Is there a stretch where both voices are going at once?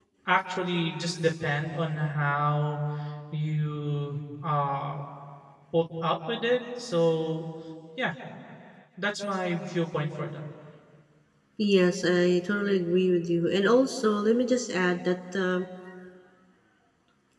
No

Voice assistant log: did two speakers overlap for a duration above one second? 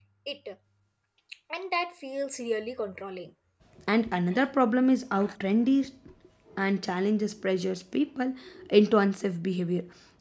No

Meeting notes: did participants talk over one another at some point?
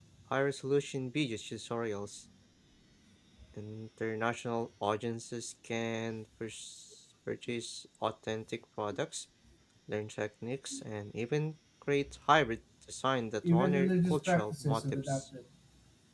Yes, from 13.4 s

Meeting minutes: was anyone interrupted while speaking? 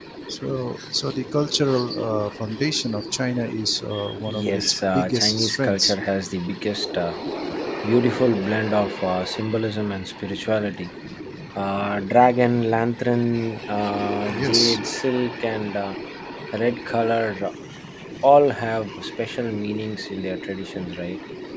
Yes, from 4.3 s

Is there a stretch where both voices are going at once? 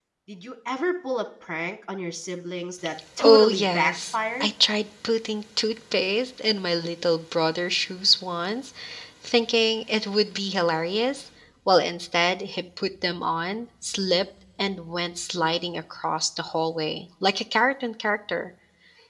Yes, from 3.2 s

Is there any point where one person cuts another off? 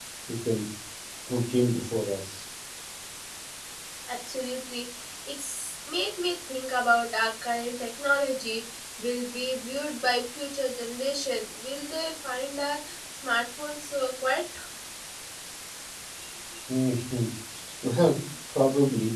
No

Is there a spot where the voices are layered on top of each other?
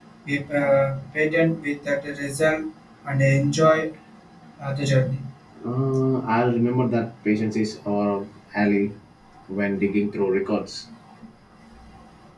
No

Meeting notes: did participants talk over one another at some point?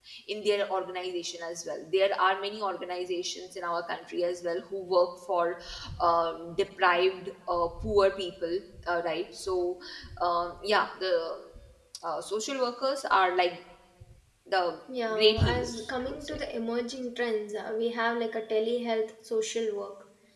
Yes, from 15.1 s

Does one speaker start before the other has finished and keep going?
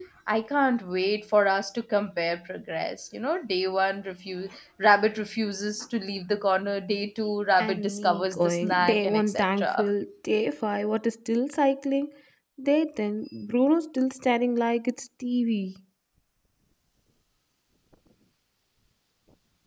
Yes, from 7.6 s

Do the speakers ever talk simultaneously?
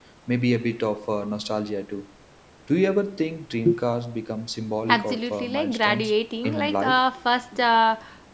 Yes, from 4.9 s

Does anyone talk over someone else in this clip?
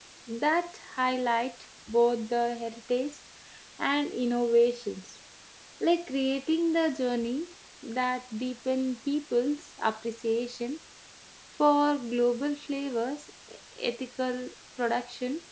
No

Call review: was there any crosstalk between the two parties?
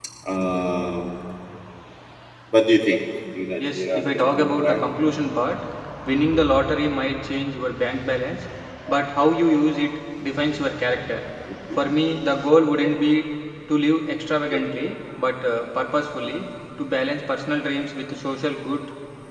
Yes, from 3.6 s

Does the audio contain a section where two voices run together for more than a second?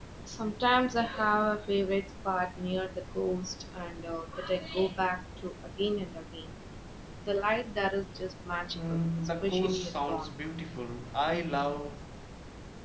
Yes, from 8.7 s

